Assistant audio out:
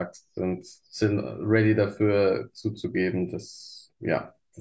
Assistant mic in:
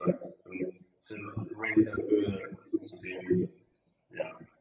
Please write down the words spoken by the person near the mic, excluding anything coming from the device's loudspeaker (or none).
none